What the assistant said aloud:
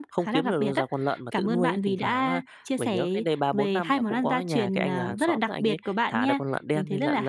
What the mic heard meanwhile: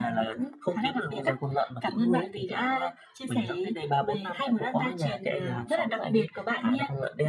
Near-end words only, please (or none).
none